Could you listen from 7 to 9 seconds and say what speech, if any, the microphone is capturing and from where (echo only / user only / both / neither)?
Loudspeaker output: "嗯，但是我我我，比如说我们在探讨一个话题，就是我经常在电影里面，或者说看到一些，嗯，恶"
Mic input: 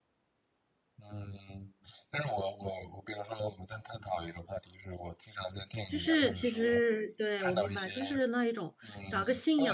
both